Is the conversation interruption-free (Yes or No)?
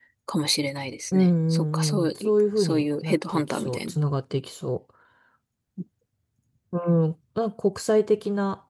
No